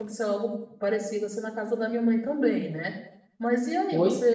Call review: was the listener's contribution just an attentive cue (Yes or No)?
Yes